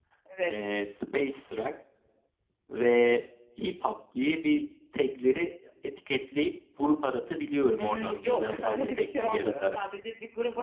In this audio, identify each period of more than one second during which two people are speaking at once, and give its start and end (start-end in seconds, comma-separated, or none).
7.8-9.8